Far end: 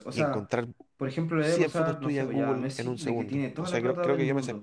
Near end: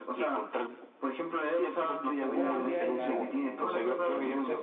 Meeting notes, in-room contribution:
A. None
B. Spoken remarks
B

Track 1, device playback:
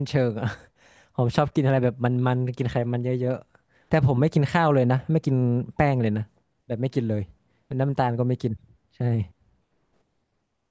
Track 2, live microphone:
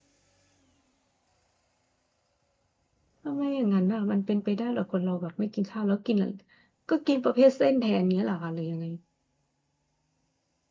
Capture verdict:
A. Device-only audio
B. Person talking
B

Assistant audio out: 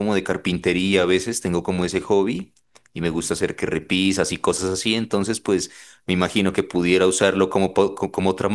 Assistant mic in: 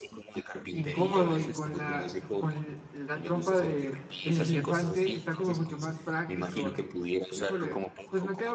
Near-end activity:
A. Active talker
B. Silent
A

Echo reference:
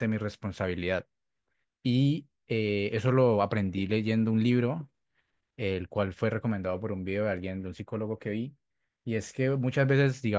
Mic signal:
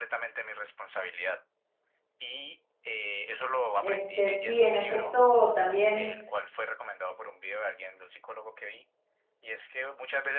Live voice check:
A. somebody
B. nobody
A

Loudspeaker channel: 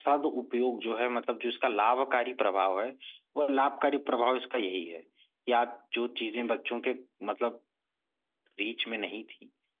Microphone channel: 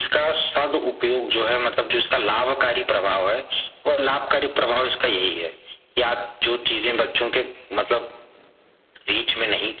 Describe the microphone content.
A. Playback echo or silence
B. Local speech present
A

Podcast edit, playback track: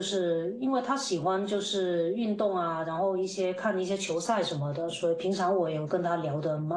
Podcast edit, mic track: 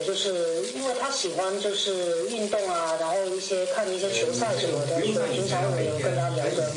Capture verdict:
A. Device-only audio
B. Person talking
B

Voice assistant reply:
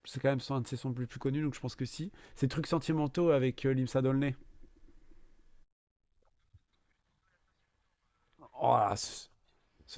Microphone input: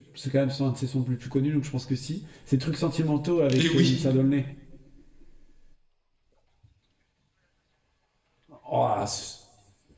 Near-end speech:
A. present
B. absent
A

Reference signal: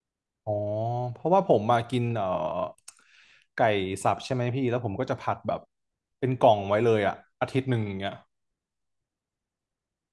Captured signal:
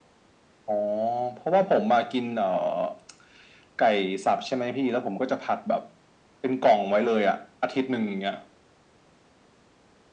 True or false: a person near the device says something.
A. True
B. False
B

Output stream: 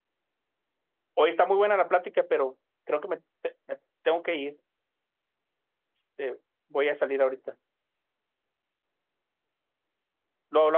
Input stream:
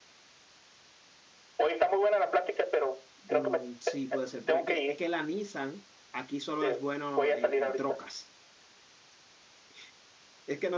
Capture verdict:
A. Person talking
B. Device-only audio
A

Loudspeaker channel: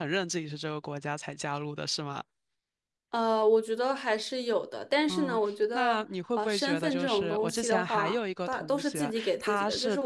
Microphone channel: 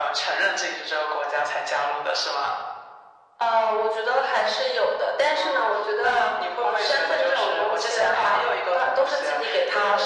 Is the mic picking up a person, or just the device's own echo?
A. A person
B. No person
B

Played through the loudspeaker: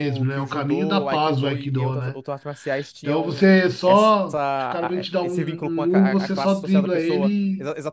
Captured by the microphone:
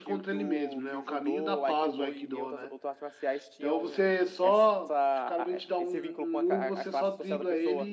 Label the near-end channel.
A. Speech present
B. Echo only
B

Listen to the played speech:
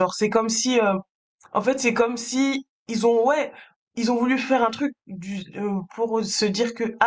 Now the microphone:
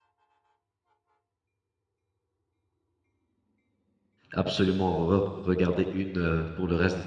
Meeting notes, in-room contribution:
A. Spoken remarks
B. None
A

